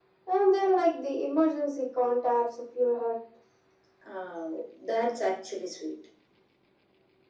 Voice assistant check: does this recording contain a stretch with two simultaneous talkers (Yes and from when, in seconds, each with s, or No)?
No